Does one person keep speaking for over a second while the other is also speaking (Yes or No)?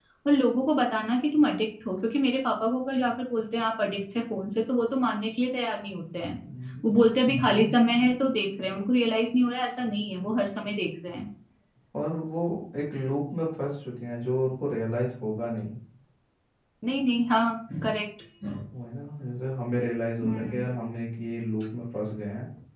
No